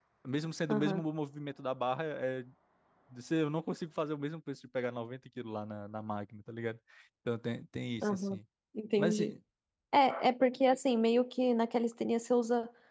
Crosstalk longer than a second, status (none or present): none